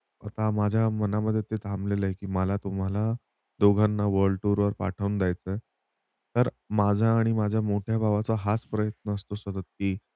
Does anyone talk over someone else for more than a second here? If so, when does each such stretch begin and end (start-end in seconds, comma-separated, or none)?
none